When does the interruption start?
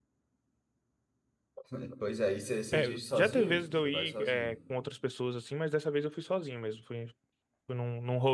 2.7 s

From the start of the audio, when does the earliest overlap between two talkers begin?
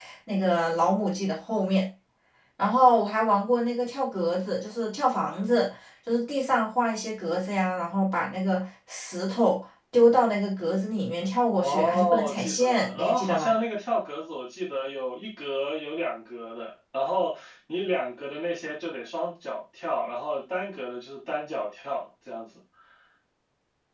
11.6 s

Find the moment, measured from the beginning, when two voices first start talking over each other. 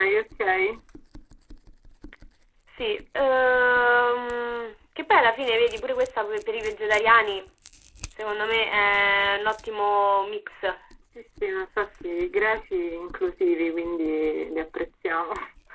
none

